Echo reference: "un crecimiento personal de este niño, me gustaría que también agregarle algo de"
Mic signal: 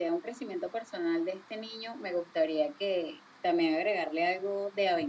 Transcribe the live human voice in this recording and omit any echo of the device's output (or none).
none